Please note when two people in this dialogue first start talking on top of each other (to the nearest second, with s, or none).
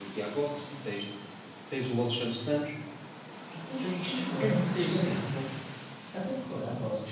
4 s